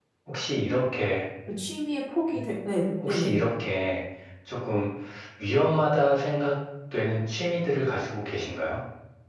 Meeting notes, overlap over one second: none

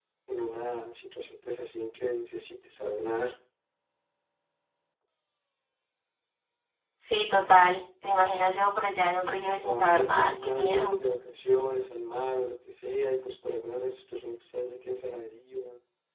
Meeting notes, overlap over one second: present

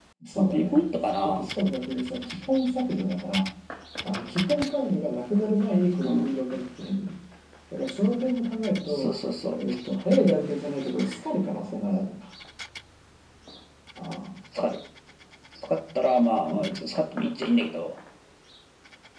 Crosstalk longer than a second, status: none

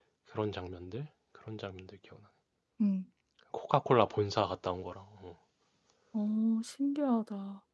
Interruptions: none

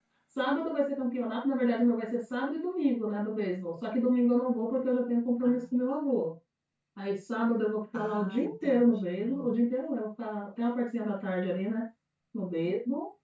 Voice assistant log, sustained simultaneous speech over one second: present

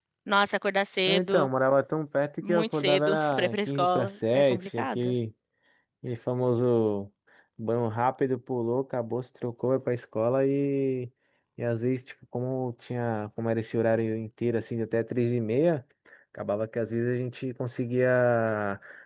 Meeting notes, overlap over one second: present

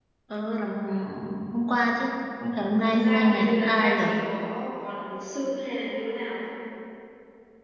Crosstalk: present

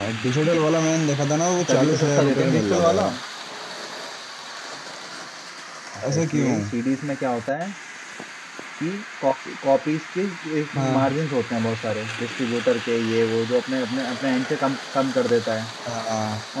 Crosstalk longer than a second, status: present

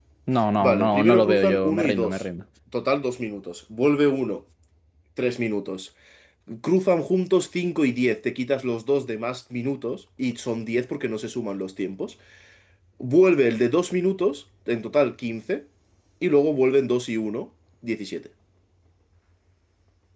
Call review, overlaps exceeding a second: present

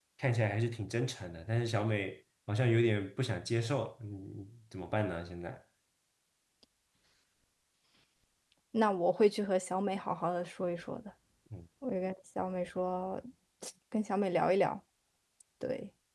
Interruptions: none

